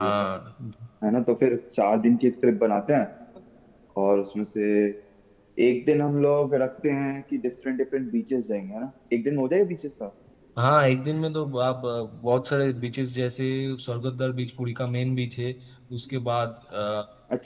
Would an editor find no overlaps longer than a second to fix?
Yes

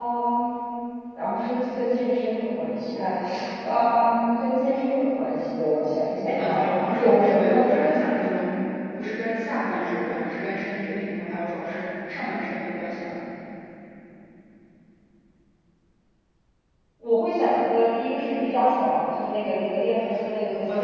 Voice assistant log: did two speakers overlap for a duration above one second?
Yes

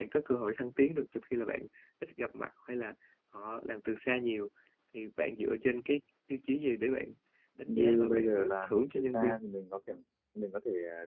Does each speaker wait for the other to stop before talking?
No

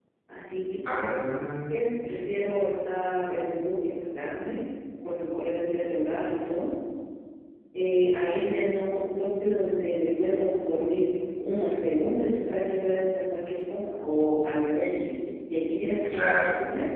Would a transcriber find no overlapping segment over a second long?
Yes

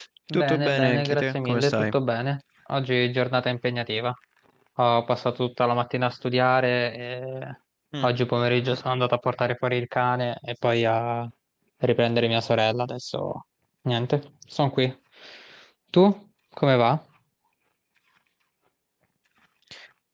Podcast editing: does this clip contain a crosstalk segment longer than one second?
Yes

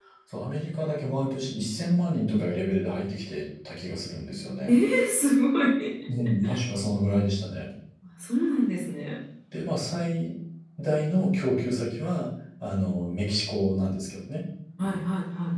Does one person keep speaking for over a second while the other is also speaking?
No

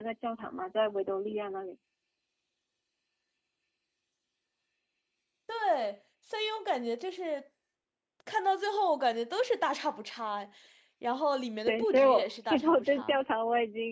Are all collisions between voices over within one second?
No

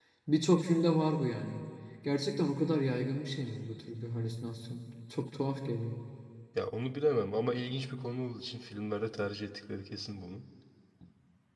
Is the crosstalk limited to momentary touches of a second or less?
Yes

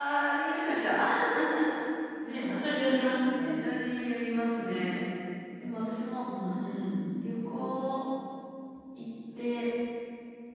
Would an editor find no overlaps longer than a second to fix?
Yes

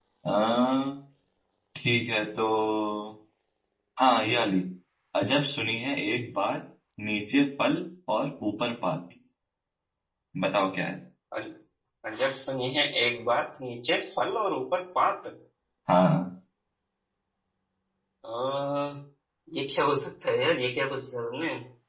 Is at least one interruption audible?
No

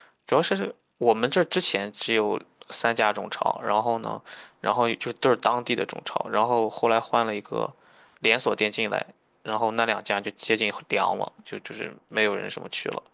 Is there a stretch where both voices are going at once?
No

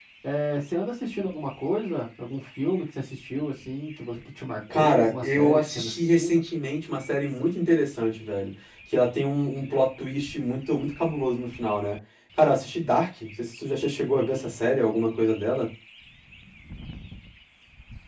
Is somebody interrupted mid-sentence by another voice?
Yes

